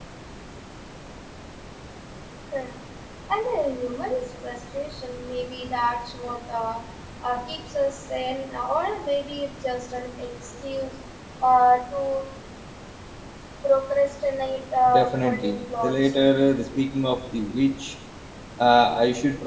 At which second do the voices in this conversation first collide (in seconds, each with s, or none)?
14.8 s